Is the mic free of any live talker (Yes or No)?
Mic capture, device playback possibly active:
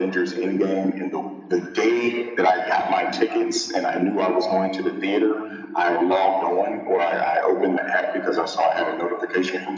Yes